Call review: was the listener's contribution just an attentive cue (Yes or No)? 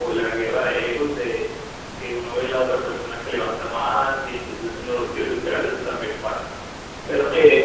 Yes